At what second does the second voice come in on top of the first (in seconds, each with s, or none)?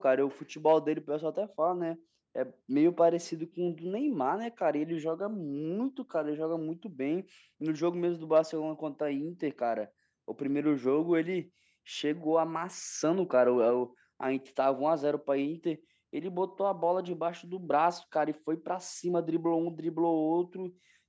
none